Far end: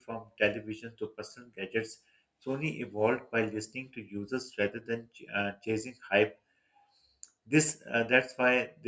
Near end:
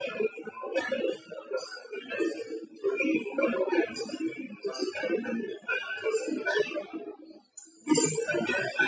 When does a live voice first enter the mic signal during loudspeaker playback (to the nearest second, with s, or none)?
none